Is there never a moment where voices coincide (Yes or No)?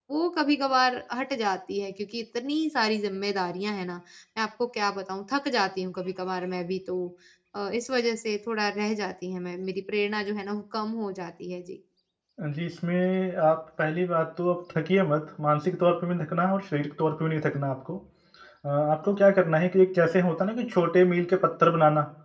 Yes